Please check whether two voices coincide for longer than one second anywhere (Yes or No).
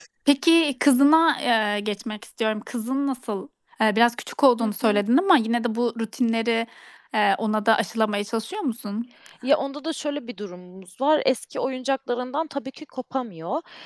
No